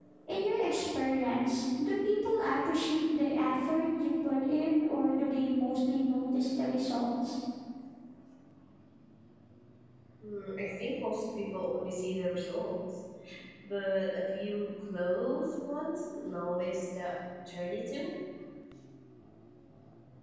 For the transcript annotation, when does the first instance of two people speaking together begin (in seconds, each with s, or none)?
none